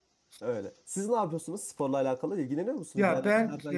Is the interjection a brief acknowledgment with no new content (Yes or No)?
No